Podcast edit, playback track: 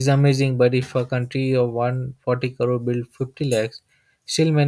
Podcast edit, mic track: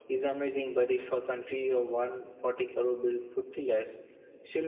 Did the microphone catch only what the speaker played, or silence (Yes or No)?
Yes